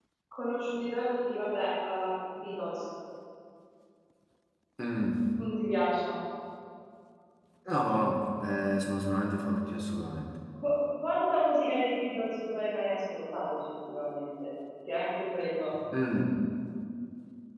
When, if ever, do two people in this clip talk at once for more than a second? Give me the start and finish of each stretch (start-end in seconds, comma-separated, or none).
none